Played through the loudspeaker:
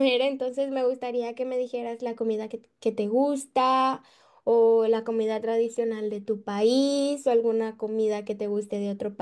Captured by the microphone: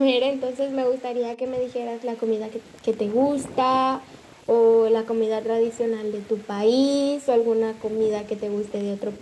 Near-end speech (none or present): none